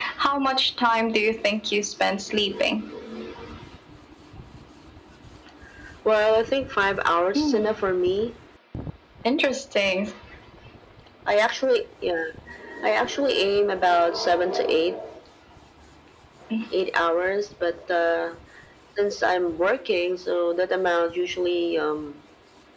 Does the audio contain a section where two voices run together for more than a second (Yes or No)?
No